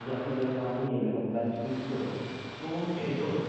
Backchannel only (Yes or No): No